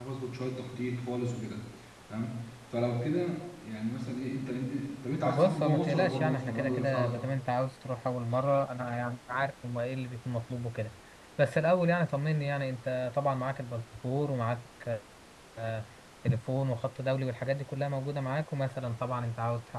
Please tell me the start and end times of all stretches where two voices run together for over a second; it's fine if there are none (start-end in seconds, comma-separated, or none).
5.2-7.2